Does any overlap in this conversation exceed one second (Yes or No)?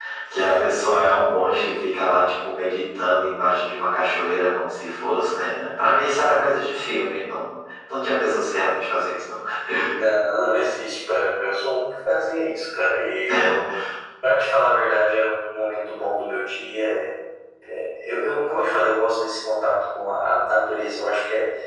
No